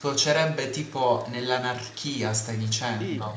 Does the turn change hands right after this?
Yes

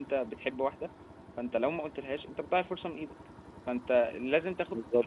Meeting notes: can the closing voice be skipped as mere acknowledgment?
Yes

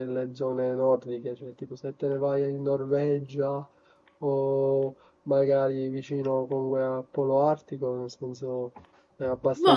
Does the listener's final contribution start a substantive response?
Yes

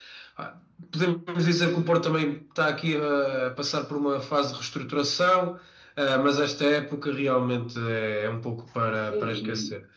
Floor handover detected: Yes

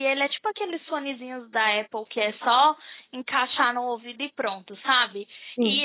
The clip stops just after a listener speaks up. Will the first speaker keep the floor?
Yes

